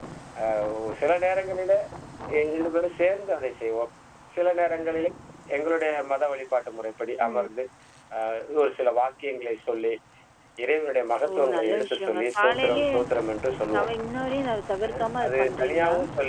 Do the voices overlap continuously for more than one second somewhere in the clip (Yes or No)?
Yes